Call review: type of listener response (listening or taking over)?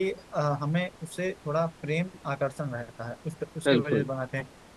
listening